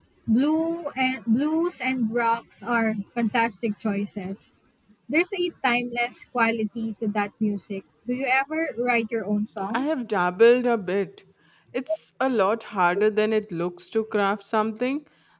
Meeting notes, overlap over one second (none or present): none